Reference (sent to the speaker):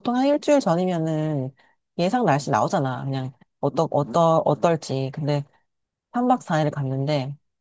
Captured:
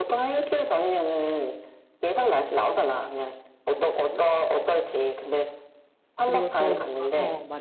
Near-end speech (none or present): present